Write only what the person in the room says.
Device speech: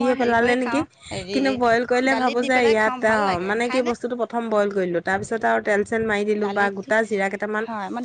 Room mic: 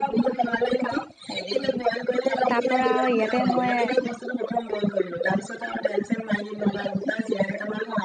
তাৰ পৰা আৰু ইয়াতে মই

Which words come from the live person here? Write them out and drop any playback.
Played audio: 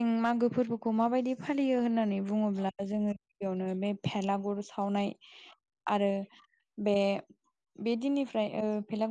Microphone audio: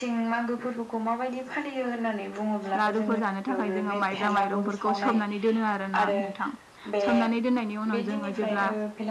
लारुफोर जानो थाखाय जोङो माइब्रा माइरंफोरखौ सोमनानै दोनो आरोना नोंथां सोमनानै दनायनि उनाव जोङो जेब्ला

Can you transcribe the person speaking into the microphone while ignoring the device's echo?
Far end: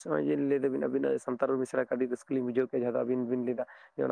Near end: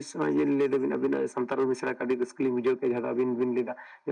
none

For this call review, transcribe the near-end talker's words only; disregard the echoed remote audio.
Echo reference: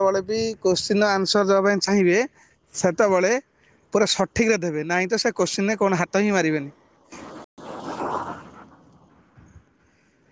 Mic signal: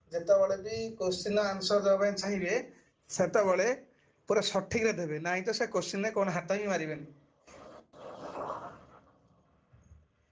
none

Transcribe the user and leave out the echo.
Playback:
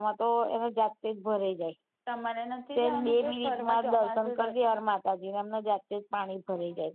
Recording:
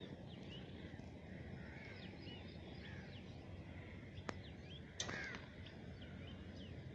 none

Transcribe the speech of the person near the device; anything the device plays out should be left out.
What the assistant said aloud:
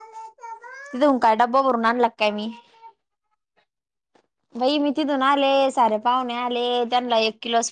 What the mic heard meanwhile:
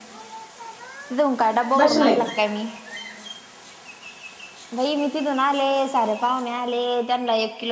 बसले

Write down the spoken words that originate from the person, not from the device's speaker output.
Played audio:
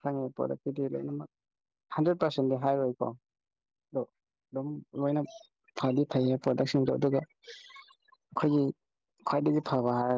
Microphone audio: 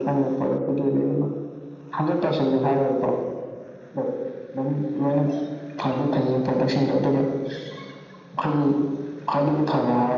none

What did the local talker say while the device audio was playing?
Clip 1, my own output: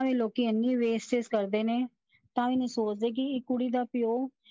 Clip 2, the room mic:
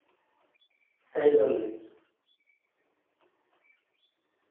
ਸਹੀ ਗੱਲ ਹੈਗੀ।

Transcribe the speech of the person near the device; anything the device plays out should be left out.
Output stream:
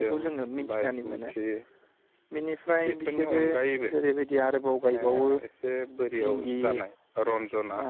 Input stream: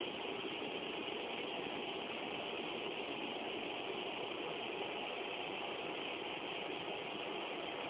none

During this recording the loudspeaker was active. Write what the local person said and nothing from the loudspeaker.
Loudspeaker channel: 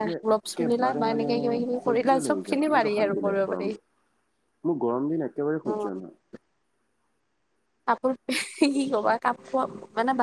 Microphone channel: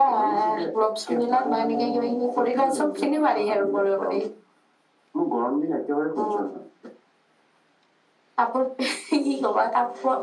none

